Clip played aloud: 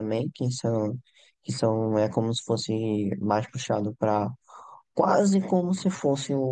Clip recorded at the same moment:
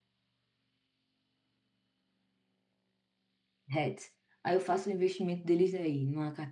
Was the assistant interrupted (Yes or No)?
Yes